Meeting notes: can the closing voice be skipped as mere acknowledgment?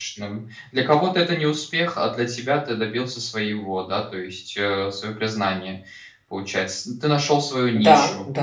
No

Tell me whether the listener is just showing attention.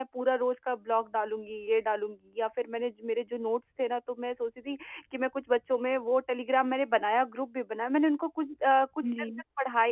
Yes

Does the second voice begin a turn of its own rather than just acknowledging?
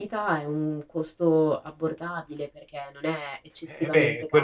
Yes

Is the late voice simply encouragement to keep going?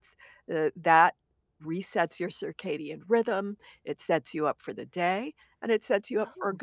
Yes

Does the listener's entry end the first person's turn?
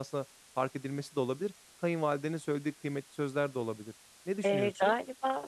Yes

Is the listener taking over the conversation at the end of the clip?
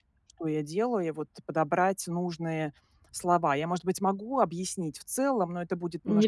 Yes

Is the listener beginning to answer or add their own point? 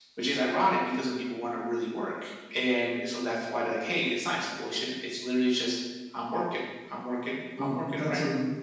Yes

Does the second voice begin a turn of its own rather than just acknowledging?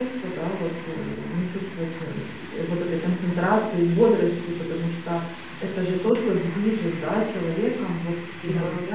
No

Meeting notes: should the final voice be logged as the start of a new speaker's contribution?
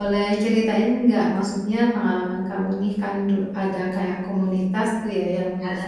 No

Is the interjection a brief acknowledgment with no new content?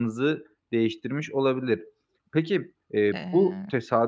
Yes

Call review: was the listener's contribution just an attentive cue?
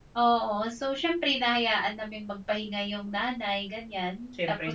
Yes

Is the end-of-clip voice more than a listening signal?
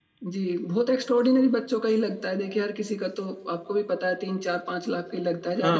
Yes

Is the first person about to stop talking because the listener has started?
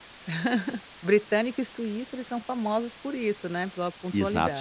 Yes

